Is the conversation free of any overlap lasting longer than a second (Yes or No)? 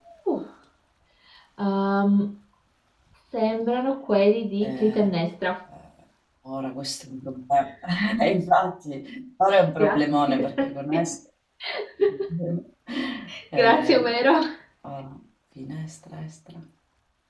No